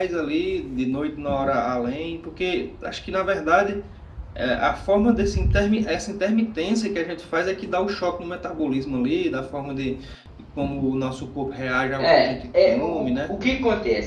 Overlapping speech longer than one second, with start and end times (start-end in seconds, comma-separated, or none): 12.0-13.4